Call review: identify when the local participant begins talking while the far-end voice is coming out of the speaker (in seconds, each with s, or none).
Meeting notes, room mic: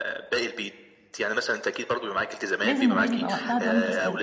2.6 s